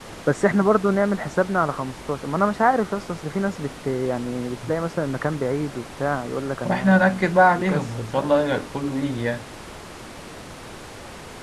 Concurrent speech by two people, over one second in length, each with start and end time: 6.6-8.4

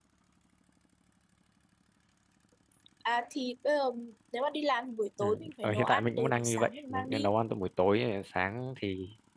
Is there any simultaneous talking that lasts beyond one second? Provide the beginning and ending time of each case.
5.2-7.3

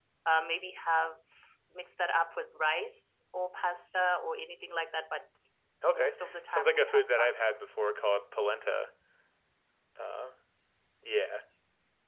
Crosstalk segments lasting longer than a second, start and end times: 5.9-7.3

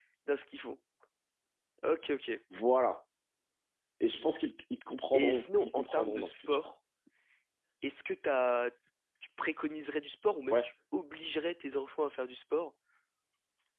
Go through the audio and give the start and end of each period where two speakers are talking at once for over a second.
5.1-6.6

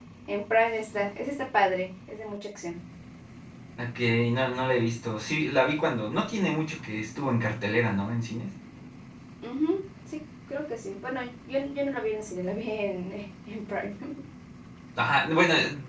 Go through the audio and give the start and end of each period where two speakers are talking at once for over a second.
none

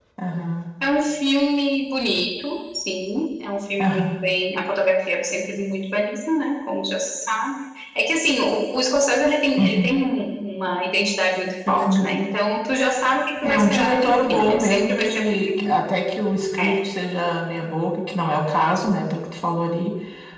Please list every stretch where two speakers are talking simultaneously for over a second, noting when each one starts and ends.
13.4-15.7

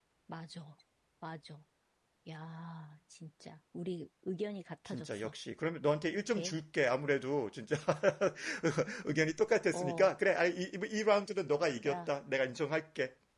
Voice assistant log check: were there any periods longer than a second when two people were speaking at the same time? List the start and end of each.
none

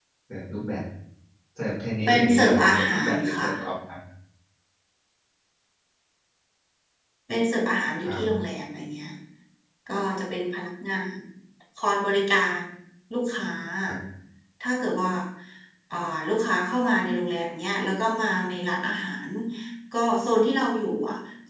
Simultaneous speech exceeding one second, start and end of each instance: 2.1-3.5

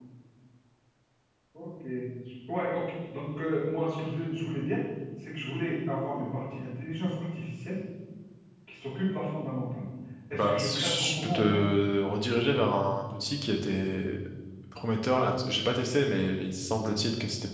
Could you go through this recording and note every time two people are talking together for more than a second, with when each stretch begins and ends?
10.3-11.6

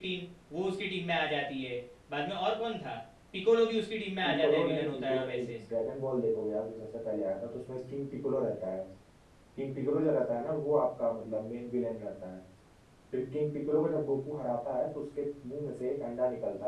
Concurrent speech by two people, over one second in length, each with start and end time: 4.2-5.5

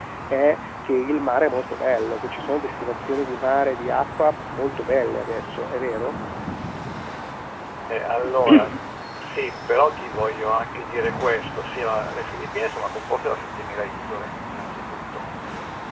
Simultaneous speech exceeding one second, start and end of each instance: none

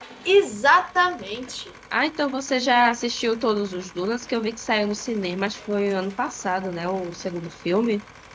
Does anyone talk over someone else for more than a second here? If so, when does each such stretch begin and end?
none

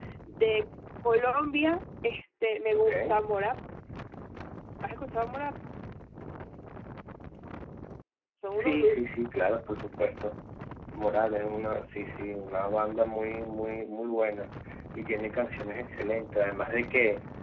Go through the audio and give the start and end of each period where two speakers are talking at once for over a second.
none

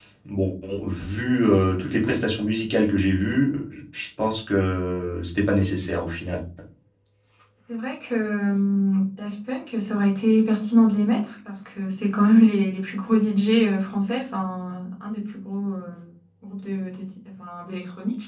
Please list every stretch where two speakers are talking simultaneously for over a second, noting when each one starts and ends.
none

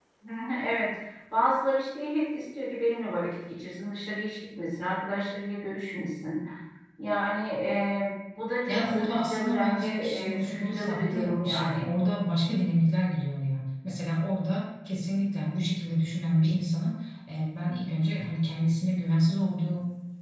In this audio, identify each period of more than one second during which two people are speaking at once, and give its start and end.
8.7-11.9

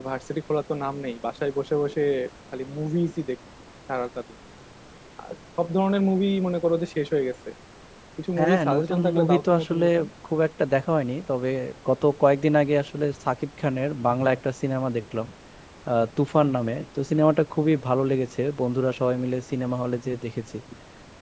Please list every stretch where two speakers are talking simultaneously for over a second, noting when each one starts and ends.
8.4-9.8

